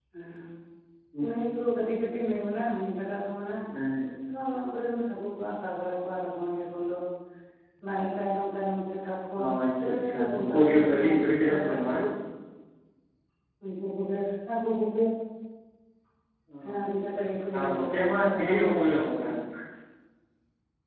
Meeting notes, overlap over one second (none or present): present